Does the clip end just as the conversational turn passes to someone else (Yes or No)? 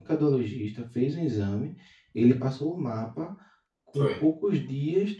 No